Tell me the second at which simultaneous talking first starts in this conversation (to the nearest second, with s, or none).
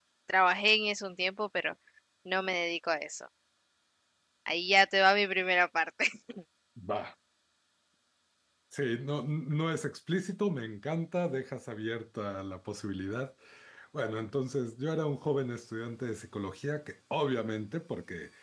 none